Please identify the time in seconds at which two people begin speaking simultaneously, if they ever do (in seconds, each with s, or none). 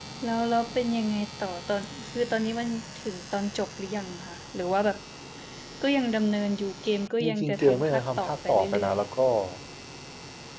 7.2 s